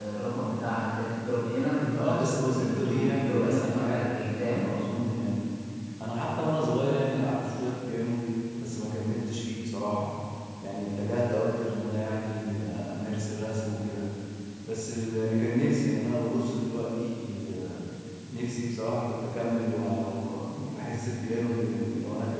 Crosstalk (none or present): present